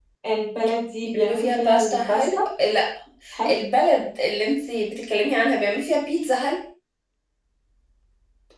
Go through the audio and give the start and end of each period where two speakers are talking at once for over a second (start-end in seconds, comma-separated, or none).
1.0-2.4